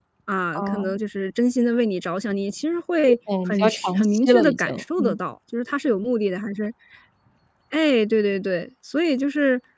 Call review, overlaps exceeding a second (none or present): present